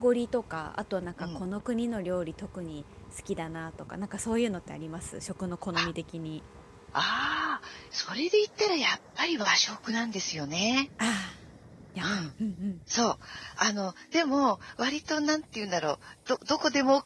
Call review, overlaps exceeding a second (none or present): none